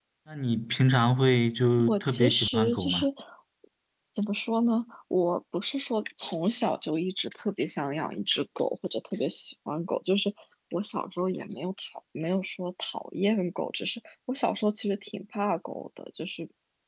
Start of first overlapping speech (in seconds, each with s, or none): 1.8 s